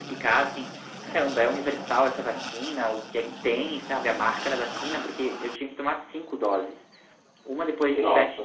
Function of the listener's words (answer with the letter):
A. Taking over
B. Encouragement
B